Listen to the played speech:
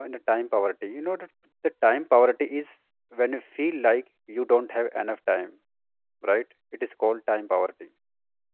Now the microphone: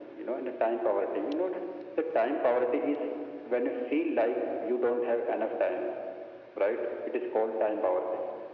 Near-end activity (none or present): none